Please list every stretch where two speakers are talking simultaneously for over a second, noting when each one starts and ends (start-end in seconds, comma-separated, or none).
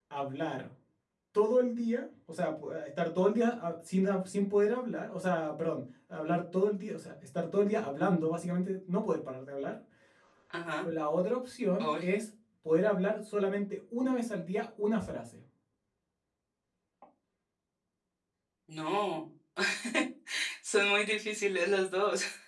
none